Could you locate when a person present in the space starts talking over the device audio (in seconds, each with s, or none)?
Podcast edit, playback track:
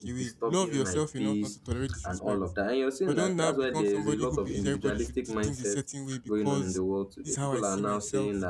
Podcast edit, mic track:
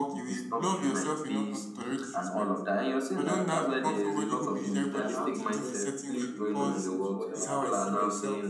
4.9 s